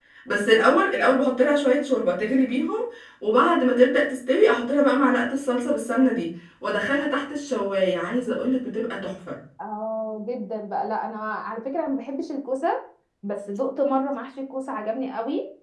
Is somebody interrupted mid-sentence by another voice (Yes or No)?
No